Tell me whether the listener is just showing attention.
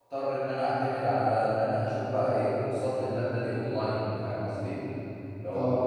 Yes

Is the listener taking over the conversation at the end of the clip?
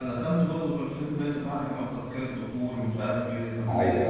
No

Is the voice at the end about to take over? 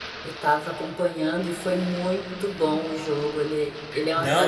Yes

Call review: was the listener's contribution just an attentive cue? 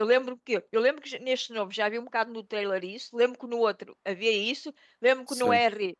Yes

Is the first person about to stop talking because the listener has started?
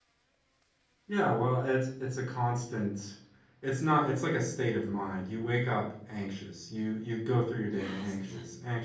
No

